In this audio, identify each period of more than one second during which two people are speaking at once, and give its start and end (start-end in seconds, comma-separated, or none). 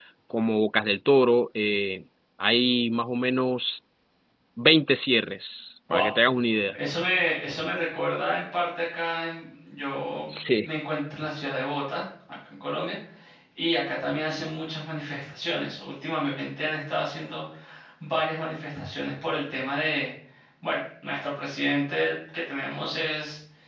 none